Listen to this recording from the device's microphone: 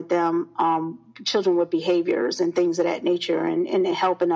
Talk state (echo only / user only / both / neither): echo only